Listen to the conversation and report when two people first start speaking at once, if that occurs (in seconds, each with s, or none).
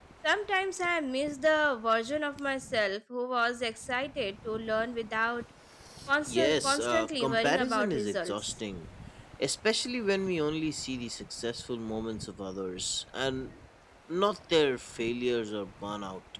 6.3 s